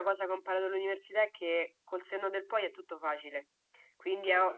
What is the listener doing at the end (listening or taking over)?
listening